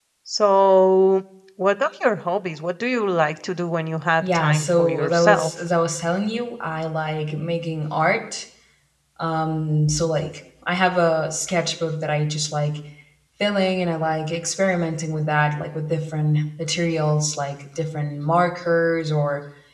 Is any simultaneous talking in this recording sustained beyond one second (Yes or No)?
Yes